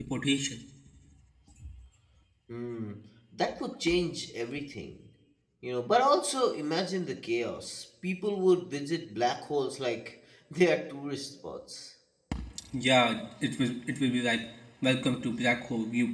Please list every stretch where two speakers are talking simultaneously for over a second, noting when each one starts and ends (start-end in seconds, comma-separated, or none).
none